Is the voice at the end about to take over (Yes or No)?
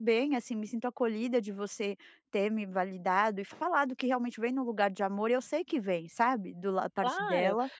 Yes